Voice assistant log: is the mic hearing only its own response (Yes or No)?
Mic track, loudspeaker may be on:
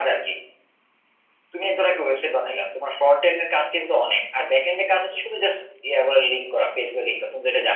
Yes